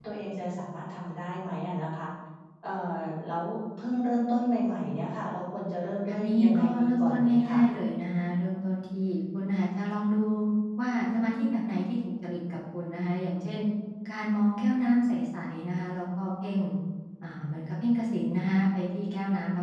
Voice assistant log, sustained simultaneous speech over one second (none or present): present